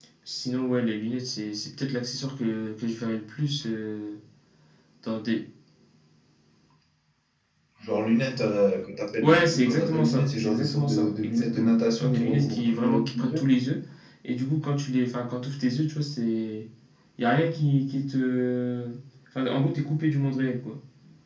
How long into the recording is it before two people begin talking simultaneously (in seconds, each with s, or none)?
9.2 s